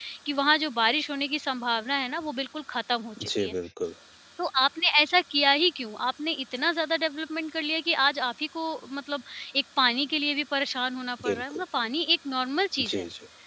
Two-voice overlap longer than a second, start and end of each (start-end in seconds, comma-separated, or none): none